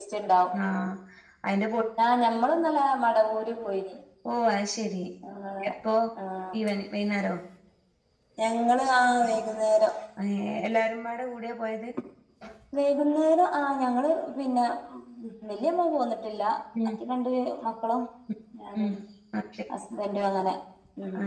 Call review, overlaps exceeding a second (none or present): none